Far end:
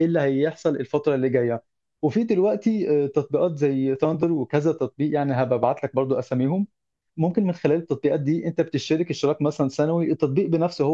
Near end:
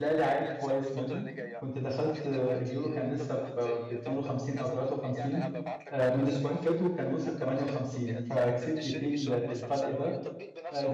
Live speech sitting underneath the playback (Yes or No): No